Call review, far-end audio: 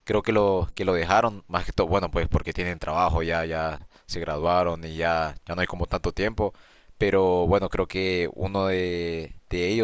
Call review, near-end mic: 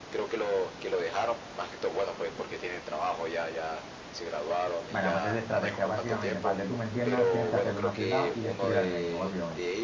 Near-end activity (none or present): present